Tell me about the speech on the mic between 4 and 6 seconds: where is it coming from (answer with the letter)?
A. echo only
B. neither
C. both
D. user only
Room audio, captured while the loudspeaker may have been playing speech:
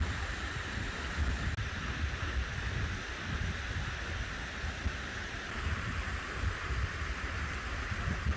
B